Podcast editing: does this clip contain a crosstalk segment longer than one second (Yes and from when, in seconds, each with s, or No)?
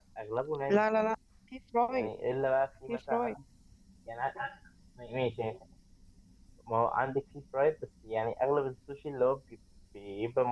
No